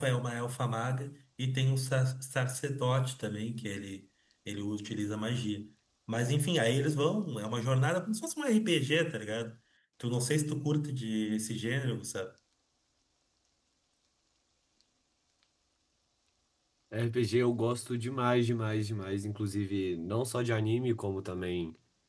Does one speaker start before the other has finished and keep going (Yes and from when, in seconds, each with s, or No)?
No